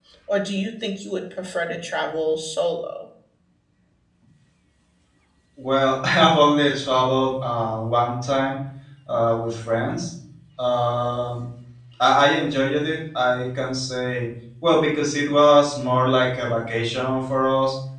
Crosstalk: none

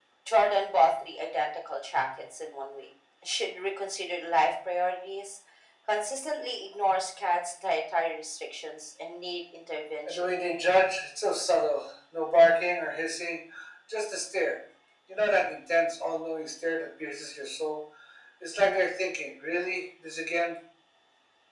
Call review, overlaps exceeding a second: none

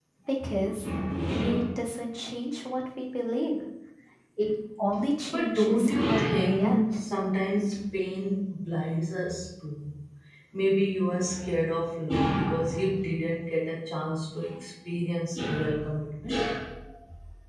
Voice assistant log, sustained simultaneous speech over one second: present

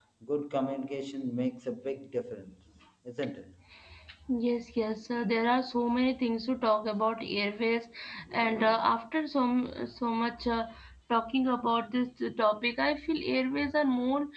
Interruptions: none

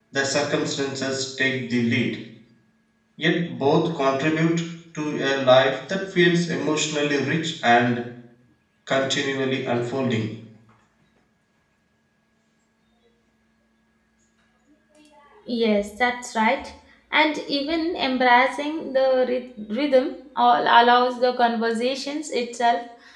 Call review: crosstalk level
none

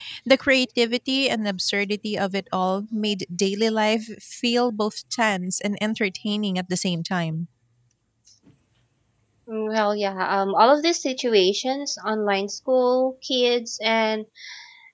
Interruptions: none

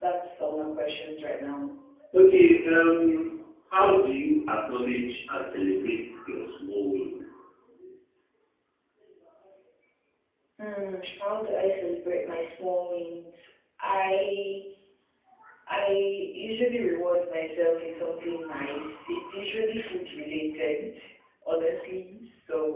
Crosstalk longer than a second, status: none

